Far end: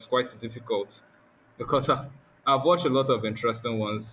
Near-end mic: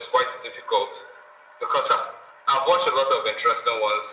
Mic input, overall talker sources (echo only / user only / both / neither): echo only